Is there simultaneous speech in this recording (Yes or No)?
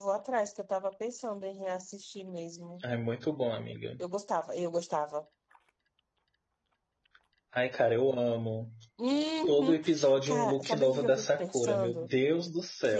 Yes